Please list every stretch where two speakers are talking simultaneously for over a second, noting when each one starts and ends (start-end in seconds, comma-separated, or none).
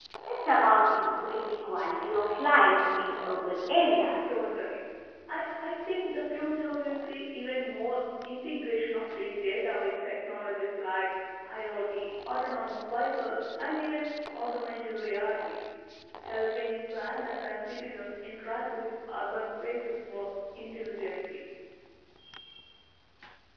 none